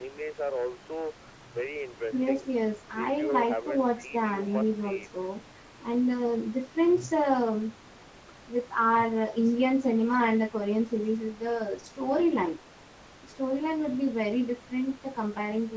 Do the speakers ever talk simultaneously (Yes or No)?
Yes